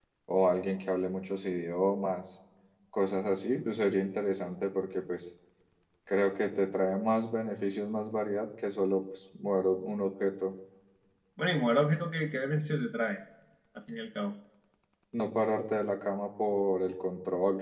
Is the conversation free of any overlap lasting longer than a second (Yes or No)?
Yes